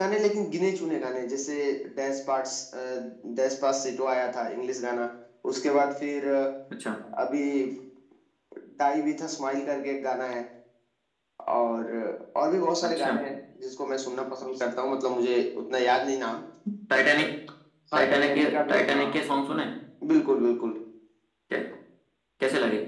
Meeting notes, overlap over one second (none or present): present